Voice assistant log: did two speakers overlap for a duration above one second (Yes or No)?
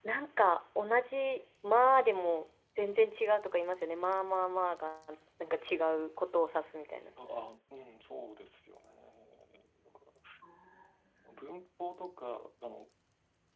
No